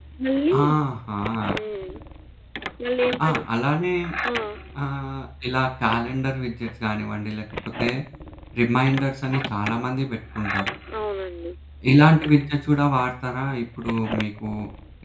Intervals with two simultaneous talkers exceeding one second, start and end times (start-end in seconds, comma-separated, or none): none